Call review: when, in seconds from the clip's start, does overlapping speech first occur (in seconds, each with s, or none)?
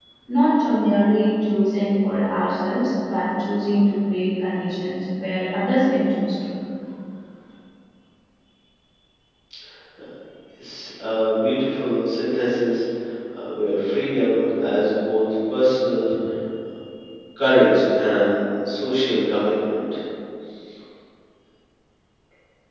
none